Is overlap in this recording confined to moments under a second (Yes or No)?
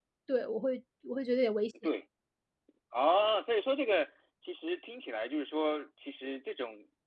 Yes